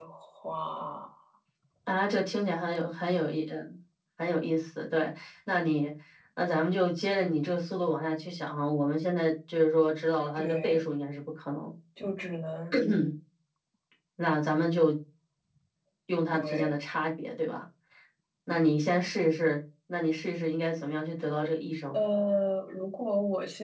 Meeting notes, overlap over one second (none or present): none